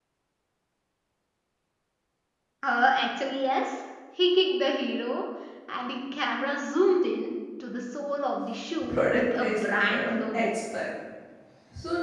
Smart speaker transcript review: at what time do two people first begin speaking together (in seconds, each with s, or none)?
8.8 s